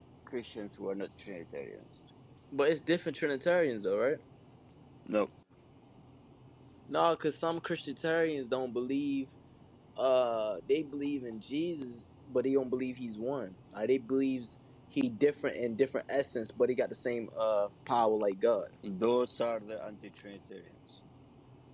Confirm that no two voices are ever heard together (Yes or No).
Yes